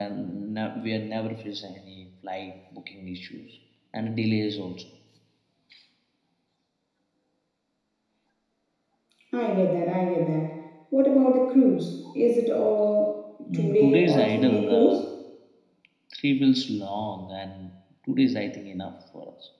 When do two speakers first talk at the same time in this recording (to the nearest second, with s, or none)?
14 s